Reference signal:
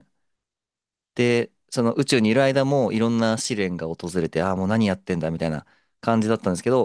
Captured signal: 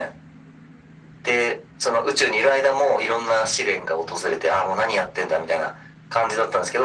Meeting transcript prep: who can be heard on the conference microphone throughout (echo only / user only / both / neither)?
echo only